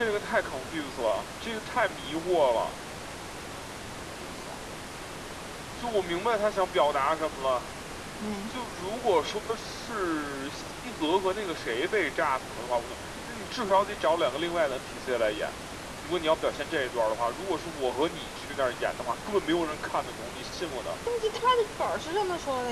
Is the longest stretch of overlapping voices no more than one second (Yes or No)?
Yes